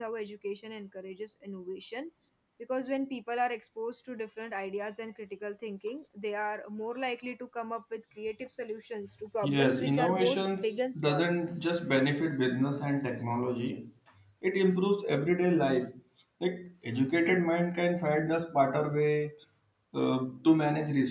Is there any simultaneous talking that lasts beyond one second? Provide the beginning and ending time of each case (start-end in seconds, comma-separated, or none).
9.4-11.3